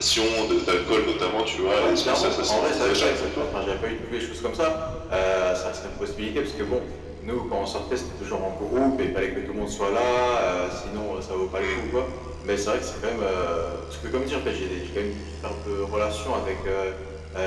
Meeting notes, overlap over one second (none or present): present